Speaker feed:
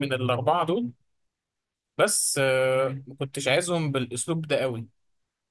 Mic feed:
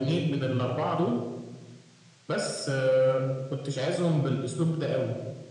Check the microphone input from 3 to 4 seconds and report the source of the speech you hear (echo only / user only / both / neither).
echo only